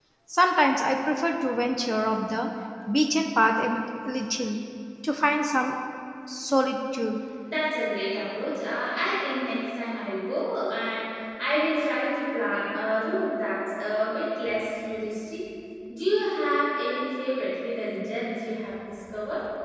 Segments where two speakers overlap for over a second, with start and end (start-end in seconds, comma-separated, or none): none